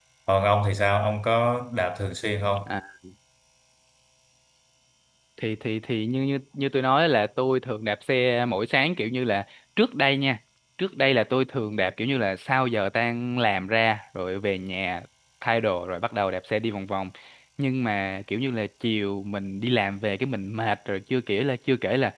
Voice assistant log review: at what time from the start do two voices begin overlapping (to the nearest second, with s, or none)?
none